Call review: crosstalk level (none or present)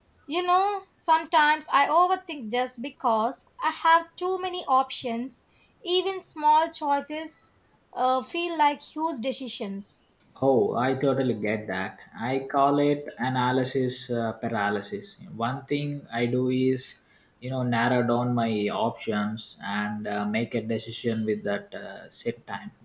none